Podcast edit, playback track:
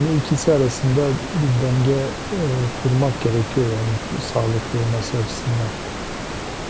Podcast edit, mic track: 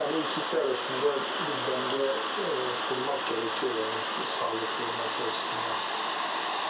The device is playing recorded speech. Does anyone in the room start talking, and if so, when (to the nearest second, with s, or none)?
none